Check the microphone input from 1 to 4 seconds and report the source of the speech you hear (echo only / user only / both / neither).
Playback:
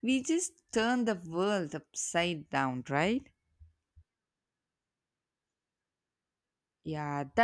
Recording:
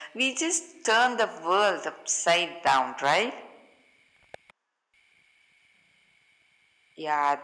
echo only